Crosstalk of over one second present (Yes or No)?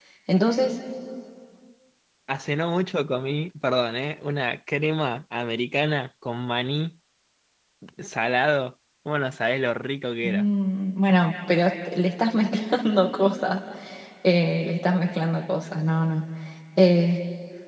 No